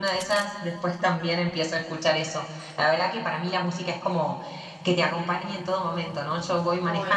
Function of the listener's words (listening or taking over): listening